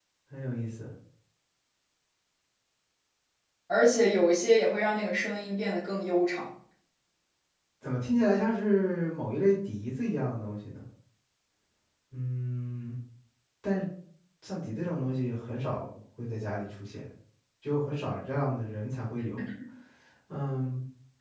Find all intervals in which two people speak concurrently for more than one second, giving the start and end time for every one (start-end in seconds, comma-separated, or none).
none